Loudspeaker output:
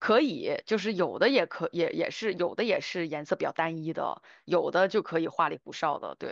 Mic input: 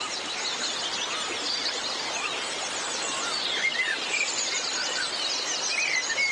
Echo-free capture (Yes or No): Yes